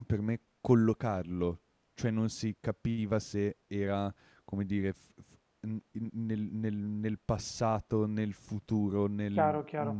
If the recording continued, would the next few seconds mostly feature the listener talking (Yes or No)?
Yes